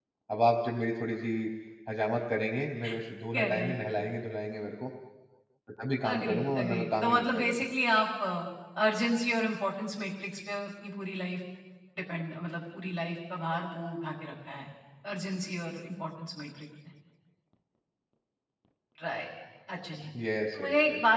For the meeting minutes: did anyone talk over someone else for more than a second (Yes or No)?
Yes